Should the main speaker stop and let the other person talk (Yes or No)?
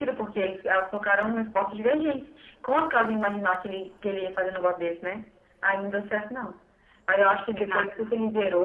No